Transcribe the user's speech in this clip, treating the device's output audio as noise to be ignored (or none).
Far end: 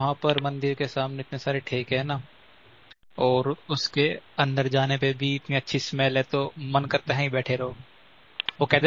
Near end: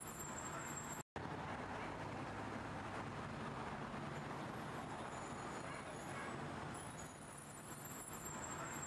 none